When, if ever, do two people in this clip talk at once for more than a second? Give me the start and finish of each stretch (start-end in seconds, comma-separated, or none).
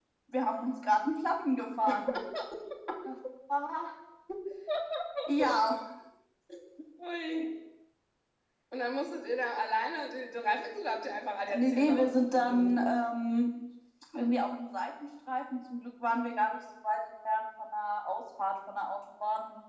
11.6-12.8